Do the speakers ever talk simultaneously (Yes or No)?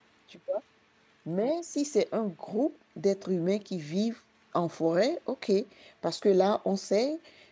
No